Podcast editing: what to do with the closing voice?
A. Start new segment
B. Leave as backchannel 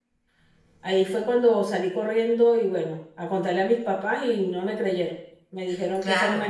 A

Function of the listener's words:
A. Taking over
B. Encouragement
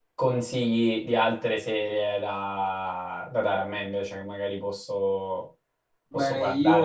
A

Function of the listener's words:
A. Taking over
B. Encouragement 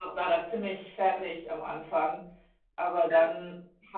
B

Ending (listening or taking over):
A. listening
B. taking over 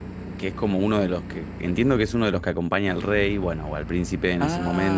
B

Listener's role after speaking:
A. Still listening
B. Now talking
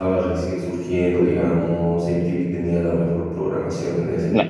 B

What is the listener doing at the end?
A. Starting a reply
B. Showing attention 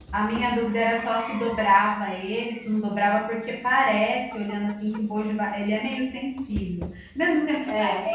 B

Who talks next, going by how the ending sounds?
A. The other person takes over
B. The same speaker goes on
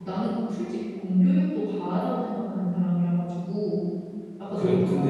A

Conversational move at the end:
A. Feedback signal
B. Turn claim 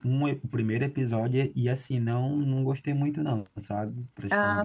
B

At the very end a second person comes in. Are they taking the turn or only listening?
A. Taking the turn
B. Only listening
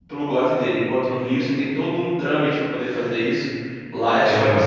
B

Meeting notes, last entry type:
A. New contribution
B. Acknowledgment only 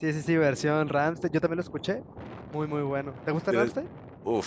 A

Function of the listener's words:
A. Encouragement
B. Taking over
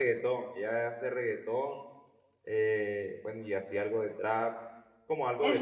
B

